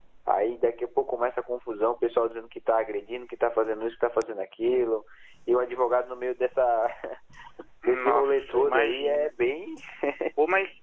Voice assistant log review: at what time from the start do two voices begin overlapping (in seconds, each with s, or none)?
7.8 s